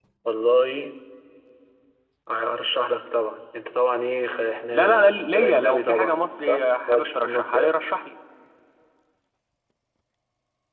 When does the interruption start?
4.7 s

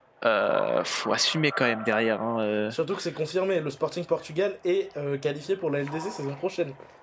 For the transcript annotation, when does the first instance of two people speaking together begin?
none

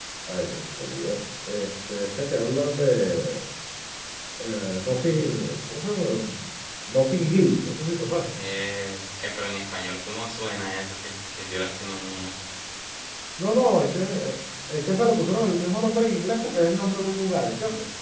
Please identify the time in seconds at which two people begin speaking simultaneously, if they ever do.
none

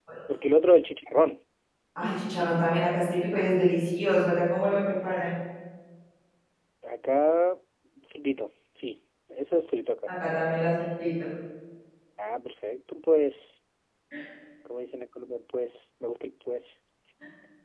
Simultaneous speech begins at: none

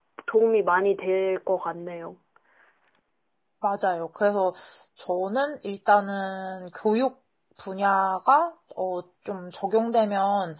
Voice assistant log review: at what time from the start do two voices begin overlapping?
none

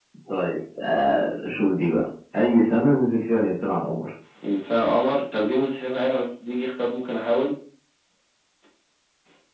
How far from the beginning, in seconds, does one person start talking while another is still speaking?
none

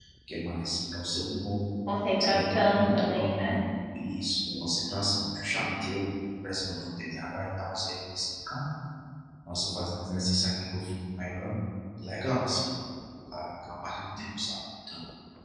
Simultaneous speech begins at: 2.2 s

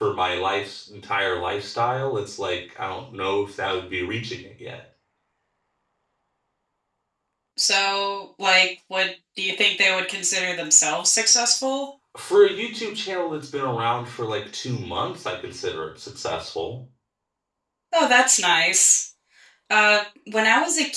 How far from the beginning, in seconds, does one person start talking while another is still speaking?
none

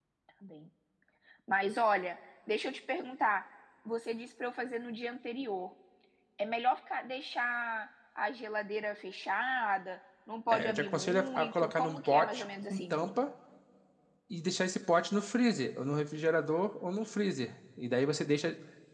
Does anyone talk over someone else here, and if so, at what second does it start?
10.5 s

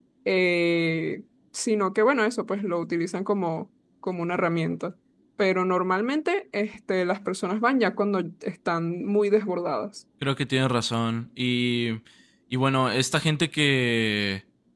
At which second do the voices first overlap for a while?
none

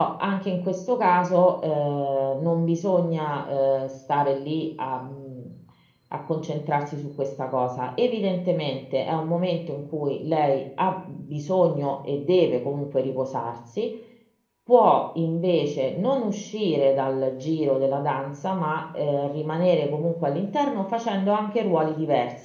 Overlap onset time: none

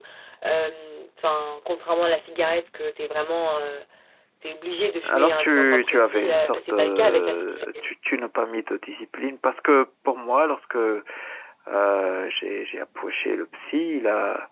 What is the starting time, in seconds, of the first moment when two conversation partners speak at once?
5.0 s

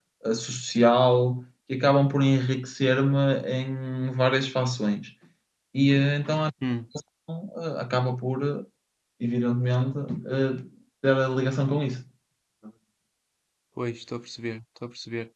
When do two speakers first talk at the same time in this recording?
none

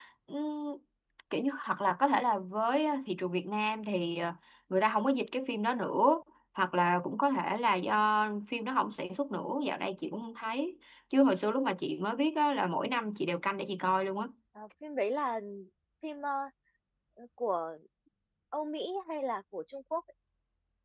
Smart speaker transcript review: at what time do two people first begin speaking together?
none

